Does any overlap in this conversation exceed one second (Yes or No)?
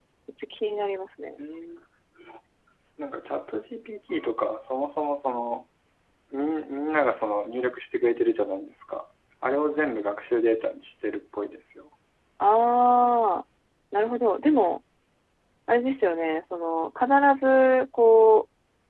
No